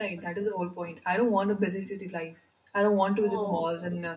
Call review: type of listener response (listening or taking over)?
listening